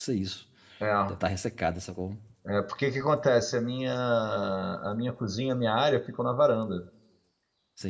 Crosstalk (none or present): none